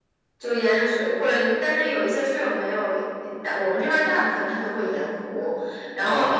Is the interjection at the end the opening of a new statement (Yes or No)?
No